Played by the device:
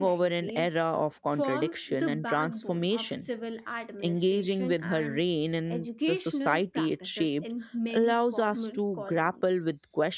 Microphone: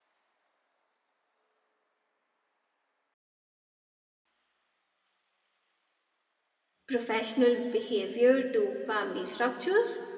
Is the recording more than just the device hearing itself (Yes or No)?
Yes